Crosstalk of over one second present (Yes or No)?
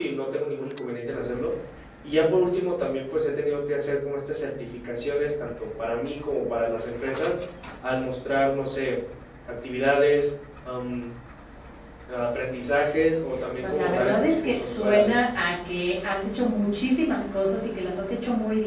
Yes